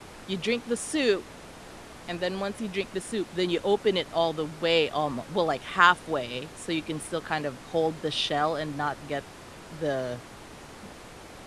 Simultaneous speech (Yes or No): No